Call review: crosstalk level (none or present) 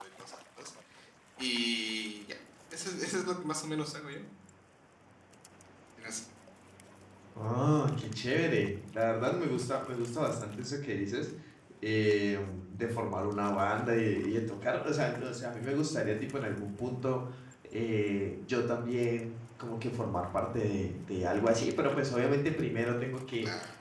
none